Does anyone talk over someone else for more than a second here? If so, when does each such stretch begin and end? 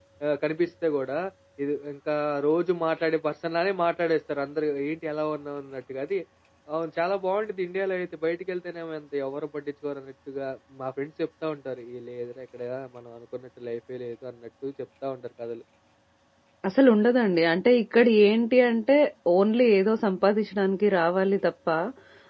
none

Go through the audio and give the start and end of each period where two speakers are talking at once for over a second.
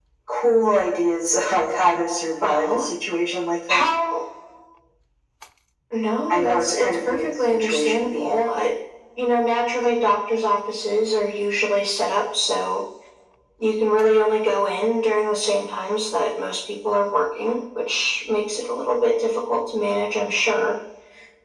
6.3-8.4

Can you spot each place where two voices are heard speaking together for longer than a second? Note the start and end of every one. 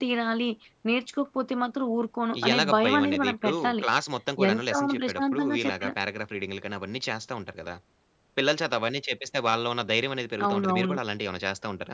2.5-3.8, 4.5-5.9

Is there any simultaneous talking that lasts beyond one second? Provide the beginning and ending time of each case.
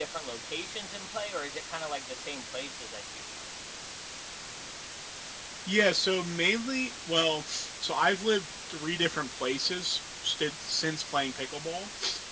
none

